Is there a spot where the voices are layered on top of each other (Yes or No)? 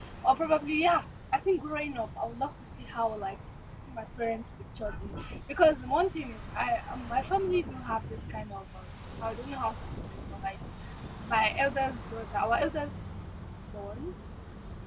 No